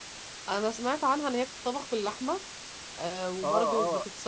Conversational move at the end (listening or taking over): taking over